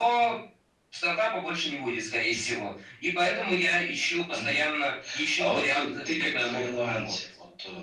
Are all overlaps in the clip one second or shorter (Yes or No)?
No